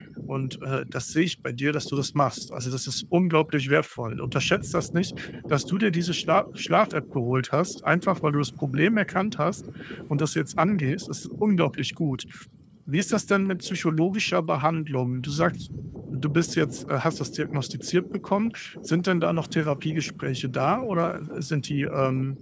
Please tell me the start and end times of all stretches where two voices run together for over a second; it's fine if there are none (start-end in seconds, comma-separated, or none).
none